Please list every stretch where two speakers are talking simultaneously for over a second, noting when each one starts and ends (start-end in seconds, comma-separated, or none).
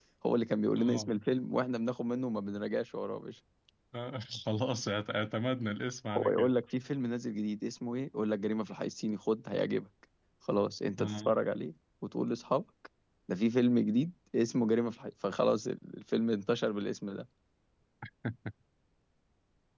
none